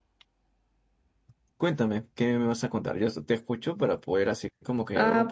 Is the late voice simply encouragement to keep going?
No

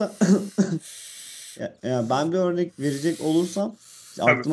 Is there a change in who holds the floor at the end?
No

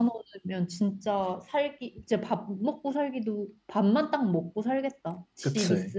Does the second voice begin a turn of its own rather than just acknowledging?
Yes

